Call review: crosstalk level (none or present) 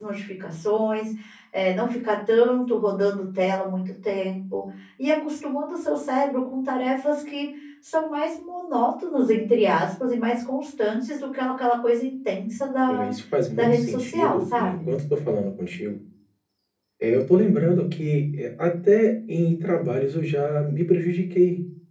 present